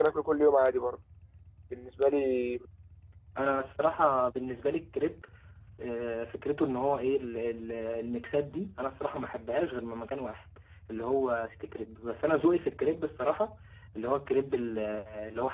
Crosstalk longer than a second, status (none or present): none